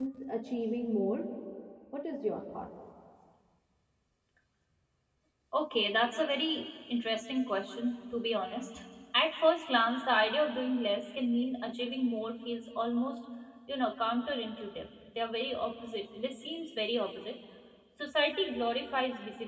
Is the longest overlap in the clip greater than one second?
No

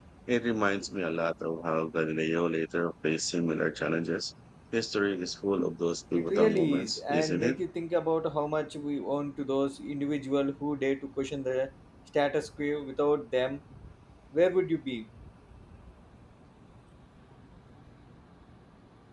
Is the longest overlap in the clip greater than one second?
Yes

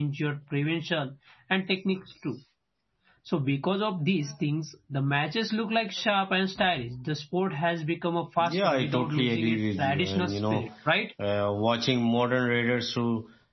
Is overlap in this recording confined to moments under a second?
No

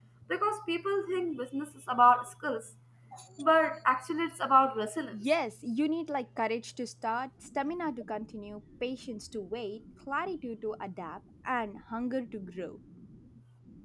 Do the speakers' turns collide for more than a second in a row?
No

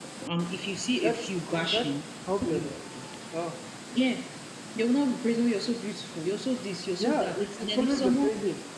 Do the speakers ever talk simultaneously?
Yes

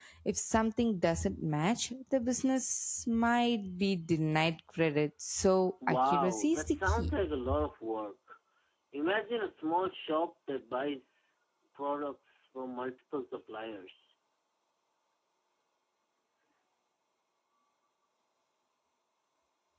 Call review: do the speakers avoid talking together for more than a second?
No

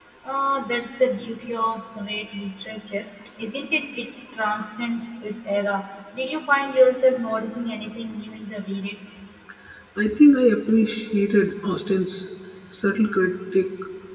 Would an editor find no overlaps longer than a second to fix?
Yes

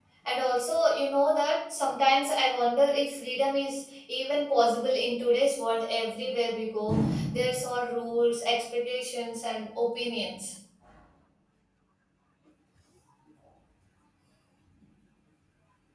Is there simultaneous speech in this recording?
No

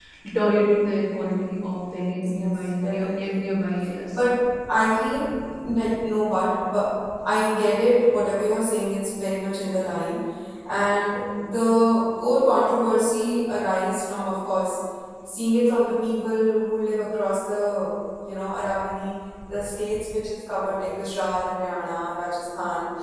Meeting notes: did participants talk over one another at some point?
Yes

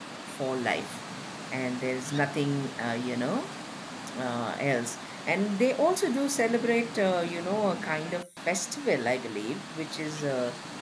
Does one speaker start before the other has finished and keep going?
No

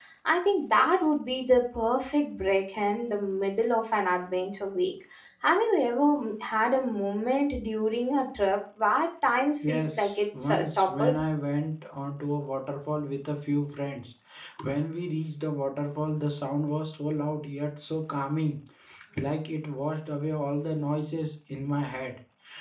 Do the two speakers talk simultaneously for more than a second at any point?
Yes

